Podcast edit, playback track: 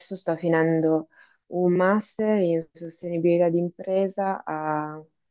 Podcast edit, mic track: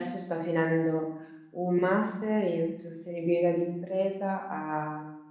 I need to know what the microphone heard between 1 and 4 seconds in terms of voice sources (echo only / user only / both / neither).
echo only